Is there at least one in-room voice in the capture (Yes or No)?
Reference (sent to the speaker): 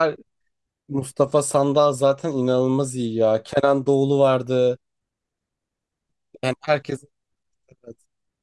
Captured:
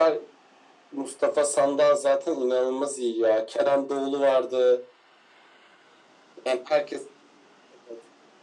No